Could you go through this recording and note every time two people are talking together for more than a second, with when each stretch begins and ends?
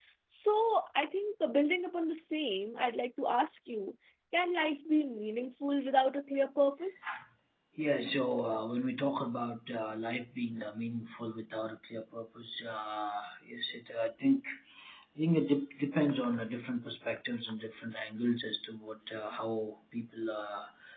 none

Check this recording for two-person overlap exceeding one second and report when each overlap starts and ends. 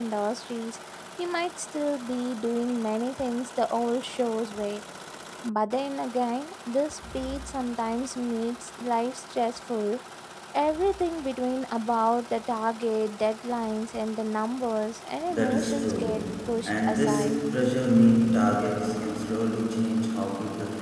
15.3-17.4

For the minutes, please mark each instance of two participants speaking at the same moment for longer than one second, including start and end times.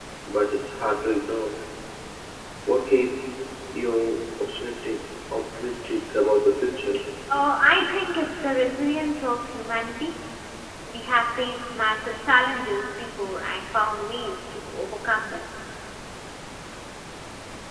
none

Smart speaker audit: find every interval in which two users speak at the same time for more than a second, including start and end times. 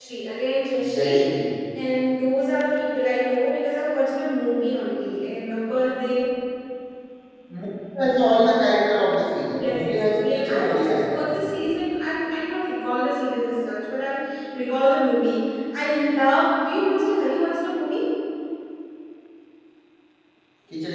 9.6-11.7

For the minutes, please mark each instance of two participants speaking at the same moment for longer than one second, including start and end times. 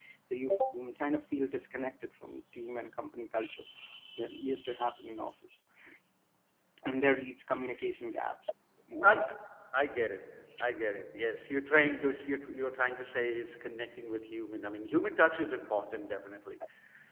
none

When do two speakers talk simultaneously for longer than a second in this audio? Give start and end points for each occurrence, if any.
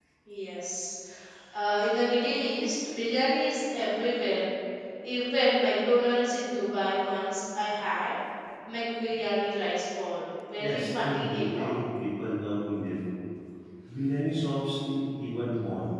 10.6-11.8

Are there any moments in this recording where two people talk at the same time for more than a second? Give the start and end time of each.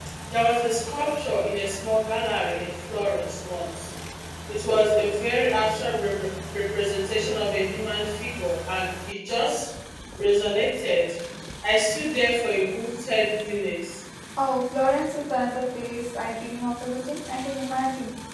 none

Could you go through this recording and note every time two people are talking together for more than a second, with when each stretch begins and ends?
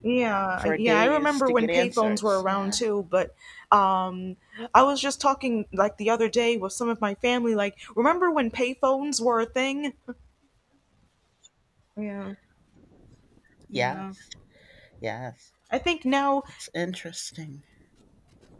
0.6-2.8

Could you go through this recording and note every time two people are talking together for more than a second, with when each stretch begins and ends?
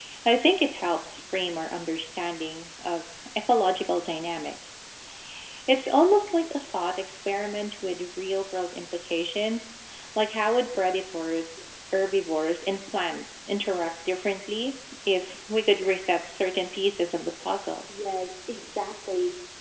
none

